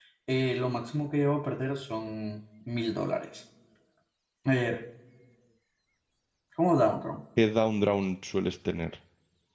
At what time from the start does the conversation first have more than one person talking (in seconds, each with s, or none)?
none